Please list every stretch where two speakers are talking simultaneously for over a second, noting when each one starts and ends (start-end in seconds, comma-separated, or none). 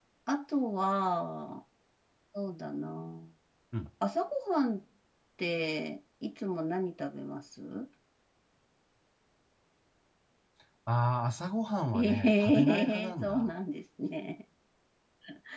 11.9-13.5